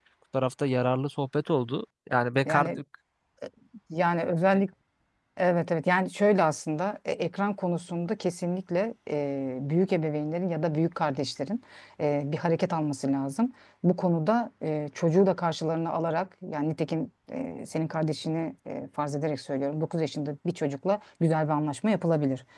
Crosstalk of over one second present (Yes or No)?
No